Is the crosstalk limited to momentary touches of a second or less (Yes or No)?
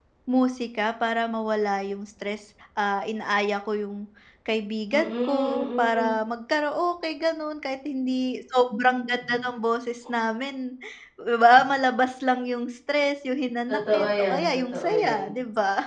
No